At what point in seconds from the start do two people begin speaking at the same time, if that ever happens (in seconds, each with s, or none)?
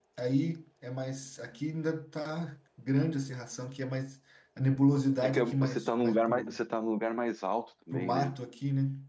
5.2 s